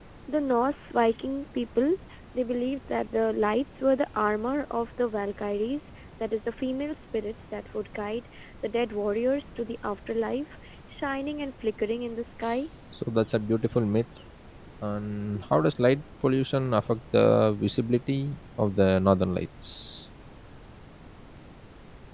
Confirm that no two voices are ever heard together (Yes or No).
Yes